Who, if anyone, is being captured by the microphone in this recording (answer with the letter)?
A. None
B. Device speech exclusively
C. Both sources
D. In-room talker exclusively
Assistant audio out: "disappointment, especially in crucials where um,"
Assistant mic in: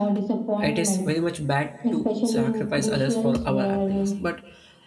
C